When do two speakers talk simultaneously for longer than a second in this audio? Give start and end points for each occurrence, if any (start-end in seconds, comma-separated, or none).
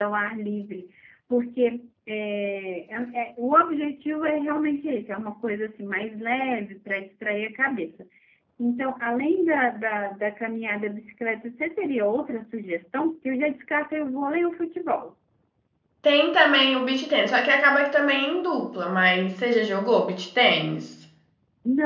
none